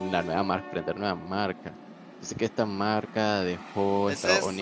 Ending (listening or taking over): taking over